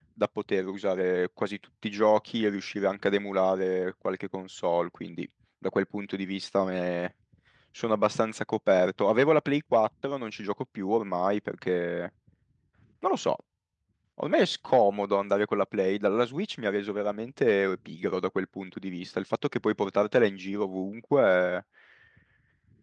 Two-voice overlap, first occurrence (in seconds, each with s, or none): none